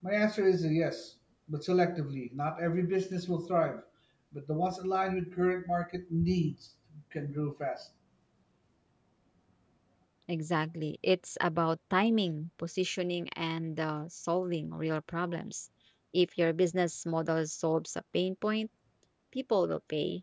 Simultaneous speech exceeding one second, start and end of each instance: none

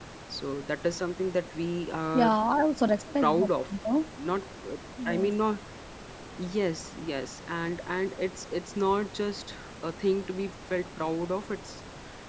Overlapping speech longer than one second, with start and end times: none

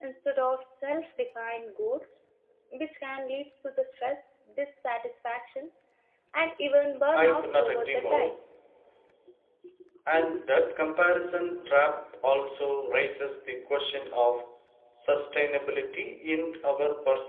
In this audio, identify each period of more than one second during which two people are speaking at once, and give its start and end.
7.1-8.4

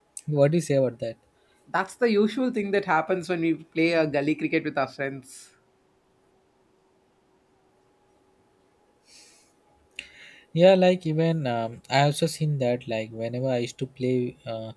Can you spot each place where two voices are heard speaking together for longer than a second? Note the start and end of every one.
none

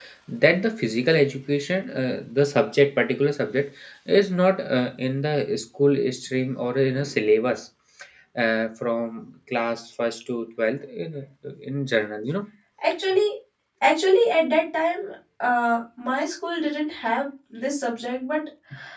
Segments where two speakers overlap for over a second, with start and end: none

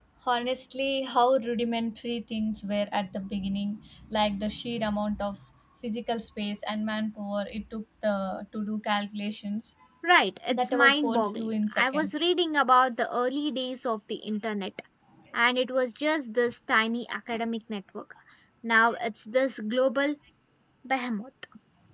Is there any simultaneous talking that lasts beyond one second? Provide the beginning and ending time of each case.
10.5-12.2

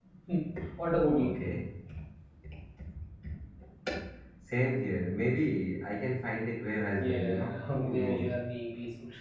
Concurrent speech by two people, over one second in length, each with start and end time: 7.0-8.3

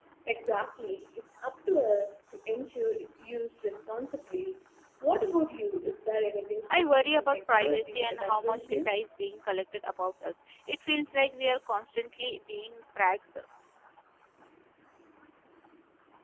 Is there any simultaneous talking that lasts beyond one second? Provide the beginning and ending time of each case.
6.7-8.9

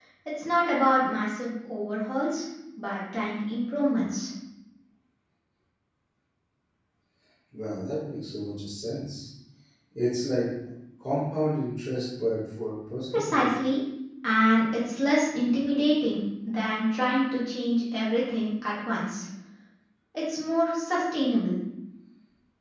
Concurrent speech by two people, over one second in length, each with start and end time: none

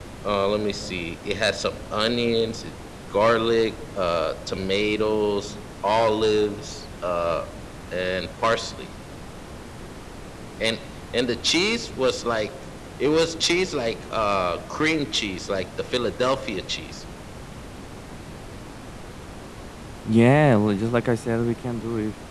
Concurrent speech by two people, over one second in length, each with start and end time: none

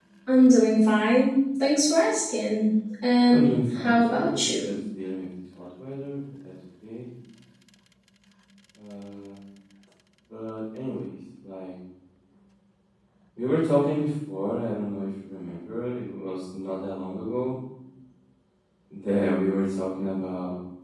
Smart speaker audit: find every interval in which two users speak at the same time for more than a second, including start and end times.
3.3-4.7

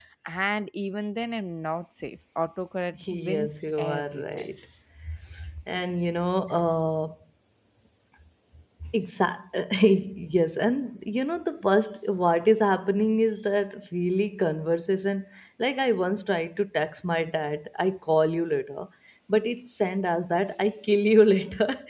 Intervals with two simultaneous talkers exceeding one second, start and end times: 3.1-4.5

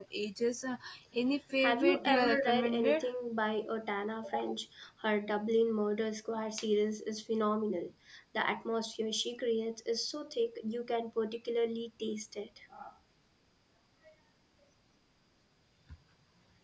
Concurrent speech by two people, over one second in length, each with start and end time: 1.6-3.0

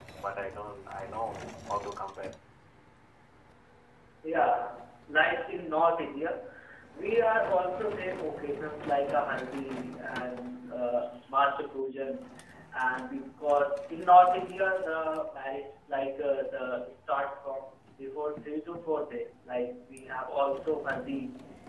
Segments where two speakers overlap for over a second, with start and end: none

